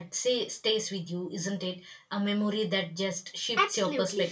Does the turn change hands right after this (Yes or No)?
Yes